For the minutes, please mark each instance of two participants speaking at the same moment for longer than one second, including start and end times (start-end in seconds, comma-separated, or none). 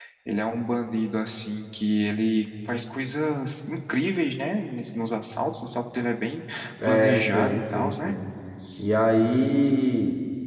6.8-8.1